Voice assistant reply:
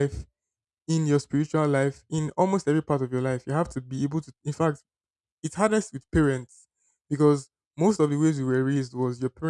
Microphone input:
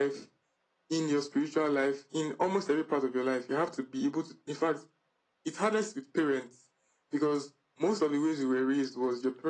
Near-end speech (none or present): none